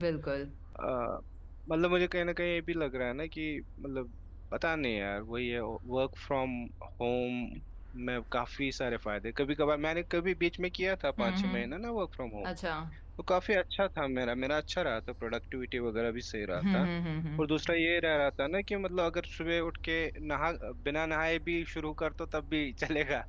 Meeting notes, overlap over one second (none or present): none